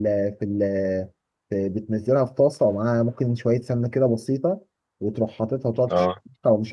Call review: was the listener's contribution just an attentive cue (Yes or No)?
Yes